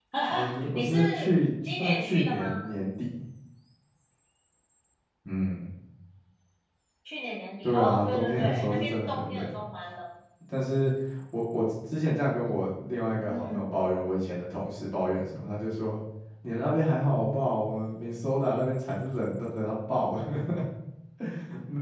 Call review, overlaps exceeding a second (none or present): present